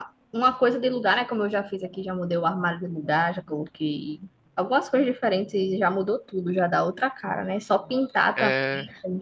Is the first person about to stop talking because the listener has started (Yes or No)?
No